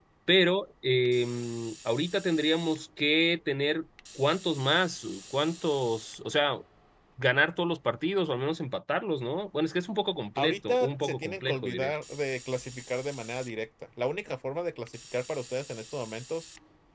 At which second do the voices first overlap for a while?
10 s

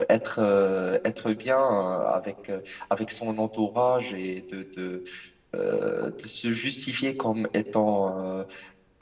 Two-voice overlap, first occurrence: none

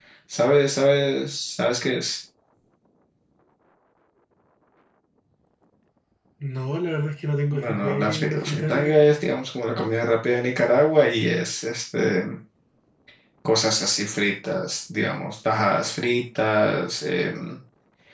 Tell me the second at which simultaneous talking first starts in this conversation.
8 s

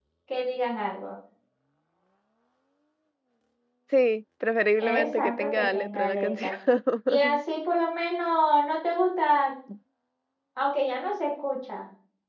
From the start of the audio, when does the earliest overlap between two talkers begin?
5 s

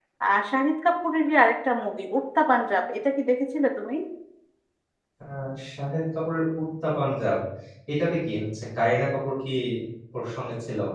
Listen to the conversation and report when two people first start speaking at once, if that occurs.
none

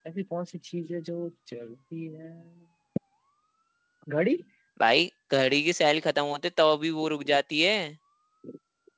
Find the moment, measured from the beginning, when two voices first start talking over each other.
none

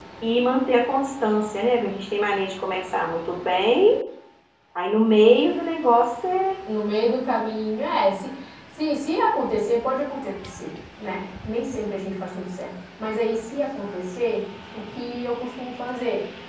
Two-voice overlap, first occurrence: none

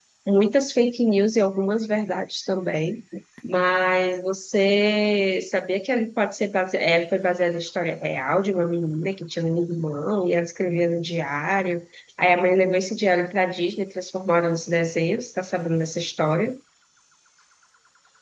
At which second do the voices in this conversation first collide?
none

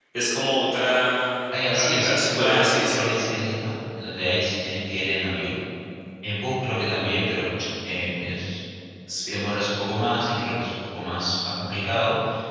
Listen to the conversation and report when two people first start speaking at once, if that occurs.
2 s

